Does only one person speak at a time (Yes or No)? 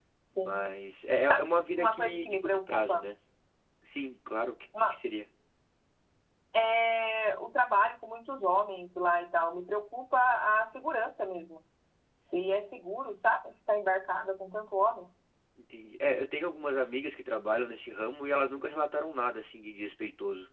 No